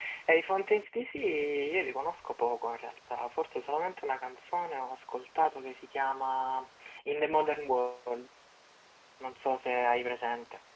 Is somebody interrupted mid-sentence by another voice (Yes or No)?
No